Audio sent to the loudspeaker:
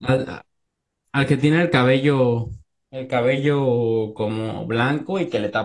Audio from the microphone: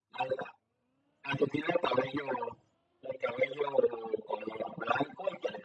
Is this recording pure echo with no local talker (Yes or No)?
Yes